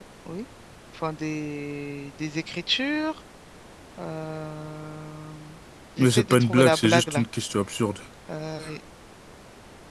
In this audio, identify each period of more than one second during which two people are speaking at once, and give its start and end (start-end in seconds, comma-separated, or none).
6.0-7.2